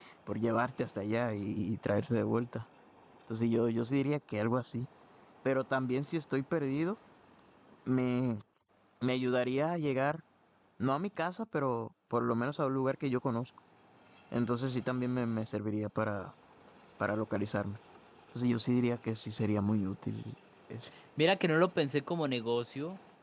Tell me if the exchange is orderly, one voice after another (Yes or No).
Yes